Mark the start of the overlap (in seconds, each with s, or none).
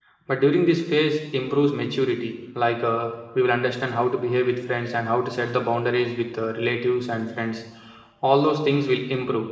none